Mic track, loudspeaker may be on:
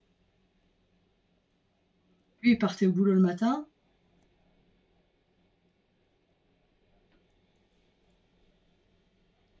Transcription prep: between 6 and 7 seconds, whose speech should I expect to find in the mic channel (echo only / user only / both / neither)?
neither